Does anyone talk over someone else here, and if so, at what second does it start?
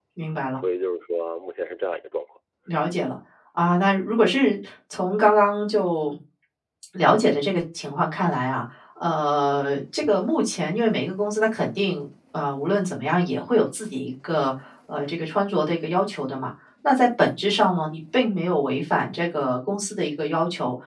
none

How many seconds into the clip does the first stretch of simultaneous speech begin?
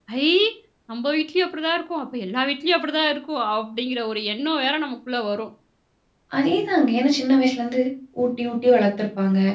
none

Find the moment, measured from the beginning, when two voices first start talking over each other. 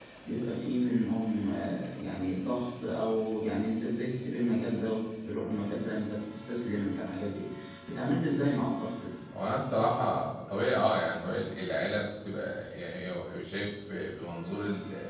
none

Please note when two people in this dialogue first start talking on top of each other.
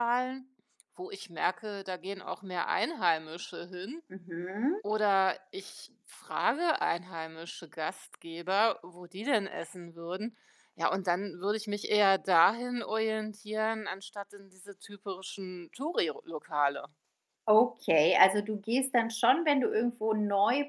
none

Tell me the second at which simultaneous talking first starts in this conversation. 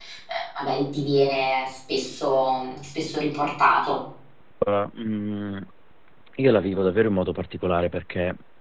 none

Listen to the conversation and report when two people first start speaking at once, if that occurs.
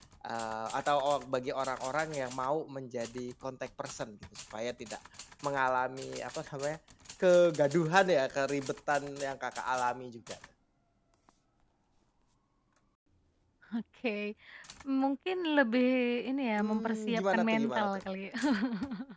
16.6 s

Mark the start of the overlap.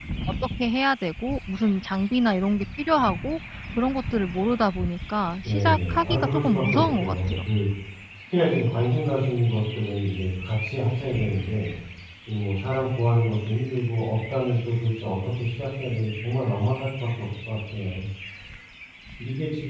5.4 s

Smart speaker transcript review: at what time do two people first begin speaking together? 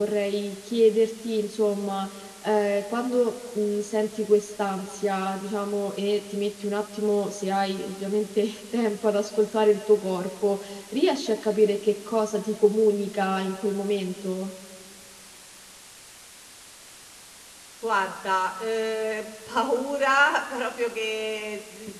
none

